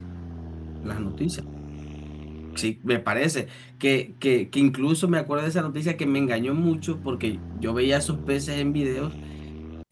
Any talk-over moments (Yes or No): No